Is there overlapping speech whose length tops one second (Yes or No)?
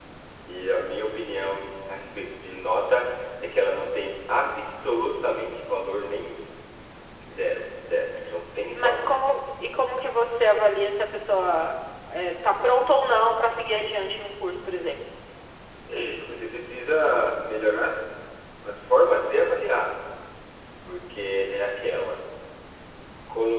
No